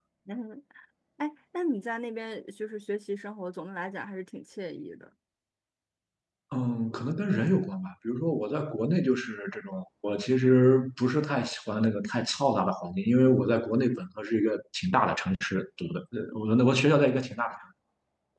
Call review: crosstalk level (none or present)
none